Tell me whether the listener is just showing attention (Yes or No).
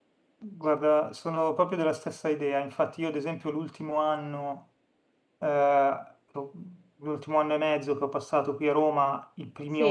Yes